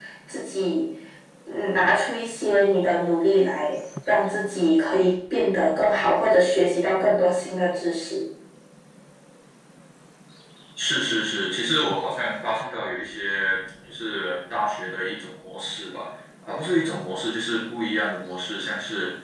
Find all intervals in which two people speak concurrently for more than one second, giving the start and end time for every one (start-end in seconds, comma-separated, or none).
none